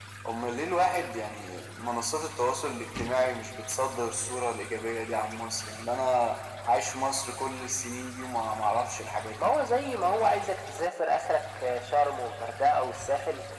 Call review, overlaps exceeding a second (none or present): none